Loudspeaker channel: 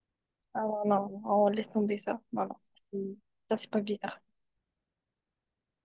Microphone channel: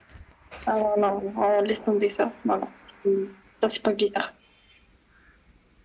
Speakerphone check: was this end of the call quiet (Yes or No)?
Yes